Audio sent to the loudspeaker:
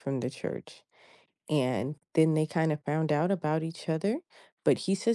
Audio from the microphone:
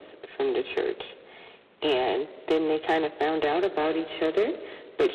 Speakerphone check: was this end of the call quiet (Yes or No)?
Yes